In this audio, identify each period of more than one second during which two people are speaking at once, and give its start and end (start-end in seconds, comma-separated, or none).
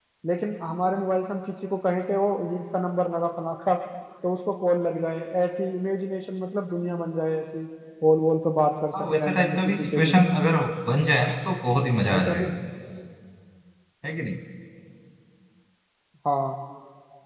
9.0-10.2